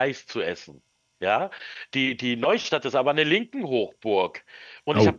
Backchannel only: Yes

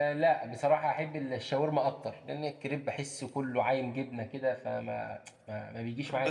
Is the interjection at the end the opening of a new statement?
Yes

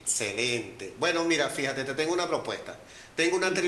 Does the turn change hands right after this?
No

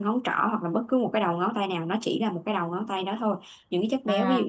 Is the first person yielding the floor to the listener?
No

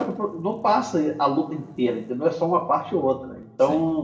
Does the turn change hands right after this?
No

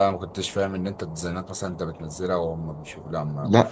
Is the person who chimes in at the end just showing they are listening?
No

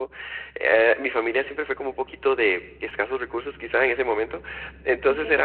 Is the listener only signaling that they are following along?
Yes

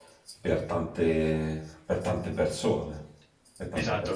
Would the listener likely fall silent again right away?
No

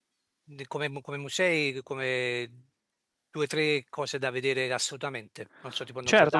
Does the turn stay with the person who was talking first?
No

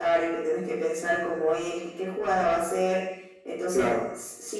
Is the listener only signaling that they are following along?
Yes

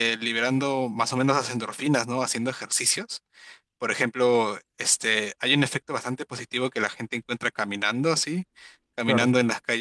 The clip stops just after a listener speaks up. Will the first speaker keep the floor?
Yes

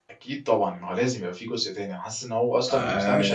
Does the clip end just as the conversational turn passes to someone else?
No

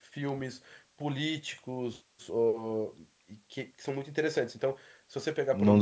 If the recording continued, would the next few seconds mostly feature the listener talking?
No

